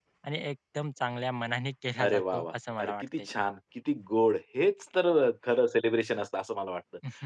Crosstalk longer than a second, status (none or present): present